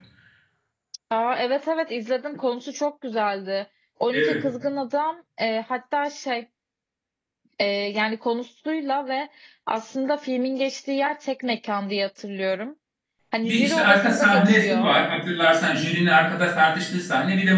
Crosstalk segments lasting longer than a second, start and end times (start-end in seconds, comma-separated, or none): 13.4-14.9